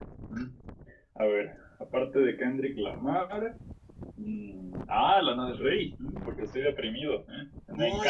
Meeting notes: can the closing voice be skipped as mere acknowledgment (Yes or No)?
No